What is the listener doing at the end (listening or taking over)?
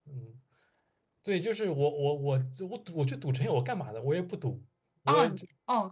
taking over